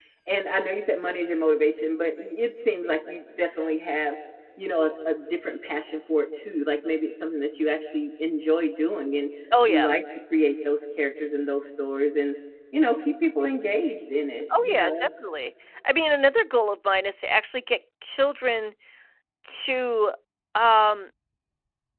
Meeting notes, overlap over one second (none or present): none